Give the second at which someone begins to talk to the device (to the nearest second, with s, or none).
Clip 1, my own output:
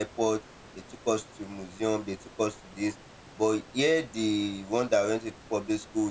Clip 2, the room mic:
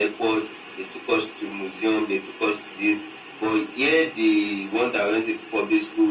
none